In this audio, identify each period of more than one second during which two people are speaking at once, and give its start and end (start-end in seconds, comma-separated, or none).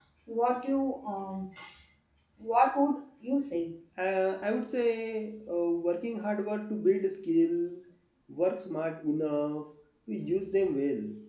none